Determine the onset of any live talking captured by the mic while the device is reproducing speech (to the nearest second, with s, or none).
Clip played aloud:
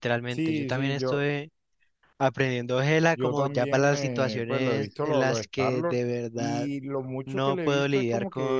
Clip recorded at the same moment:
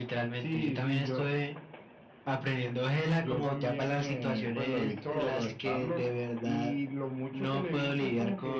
none